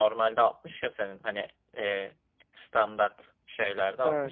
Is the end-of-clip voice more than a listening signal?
No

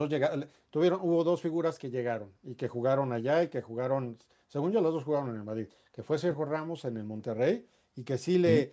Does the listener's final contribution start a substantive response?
No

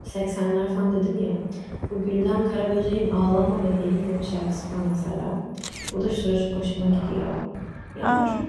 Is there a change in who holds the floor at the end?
No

